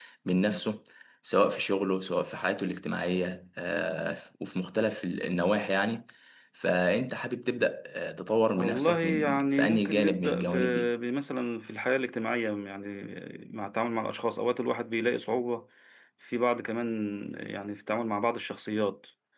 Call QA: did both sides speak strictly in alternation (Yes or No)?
No